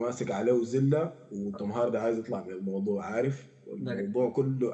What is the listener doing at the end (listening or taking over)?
listening